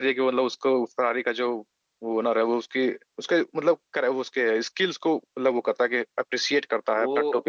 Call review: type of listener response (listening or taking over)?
taking over